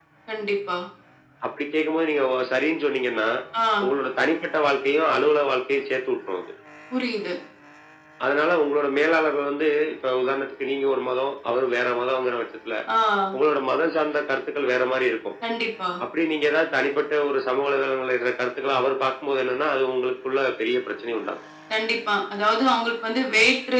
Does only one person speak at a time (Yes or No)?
Yes